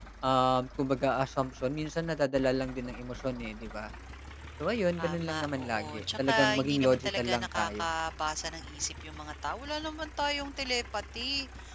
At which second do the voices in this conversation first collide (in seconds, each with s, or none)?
5.0 s